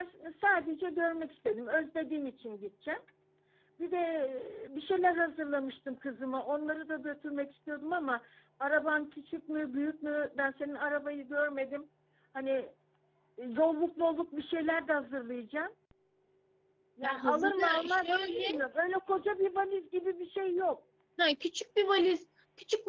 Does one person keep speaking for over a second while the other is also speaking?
Yes, from 17.0 s

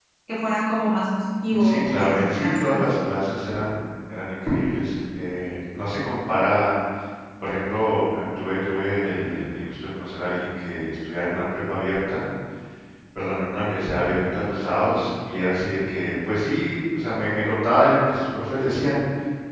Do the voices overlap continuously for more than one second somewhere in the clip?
Yes, from 1.5 s

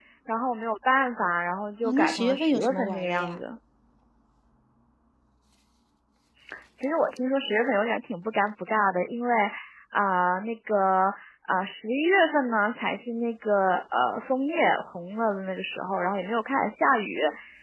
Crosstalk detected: Yes, from 1.8 s

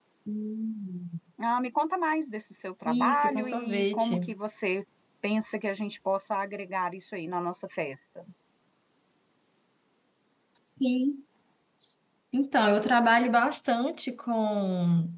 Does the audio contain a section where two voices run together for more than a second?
Yes, from 2.8 s

